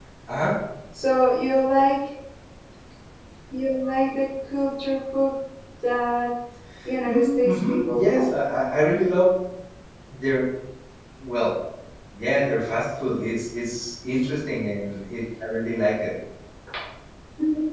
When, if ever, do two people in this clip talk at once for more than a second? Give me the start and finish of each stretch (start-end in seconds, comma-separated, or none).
7.1-8.3